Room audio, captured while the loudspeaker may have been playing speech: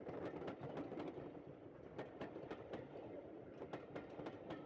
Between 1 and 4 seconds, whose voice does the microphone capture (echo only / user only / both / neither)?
neither